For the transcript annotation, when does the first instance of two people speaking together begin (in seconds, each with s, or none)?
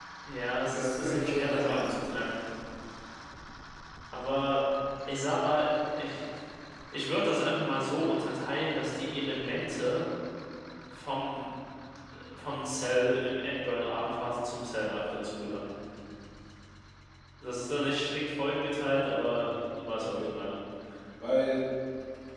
0.7 s